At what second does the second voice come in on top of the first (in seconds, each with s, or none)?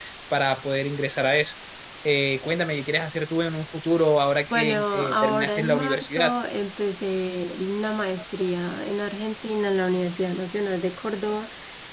4.5 s